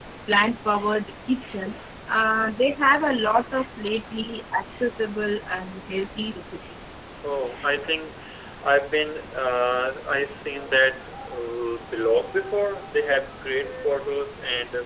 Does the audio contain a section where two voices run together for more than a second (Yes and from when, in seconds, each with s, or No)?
No